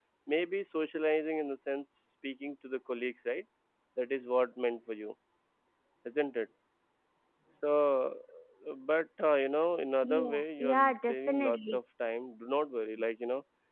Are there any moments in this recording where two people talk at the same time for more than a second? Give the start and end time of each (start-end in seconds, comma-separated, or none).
10.0-11.8